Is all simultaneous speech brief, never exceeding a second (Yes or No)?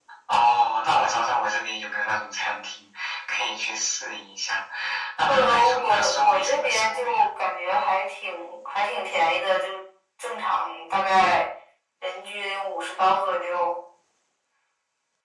No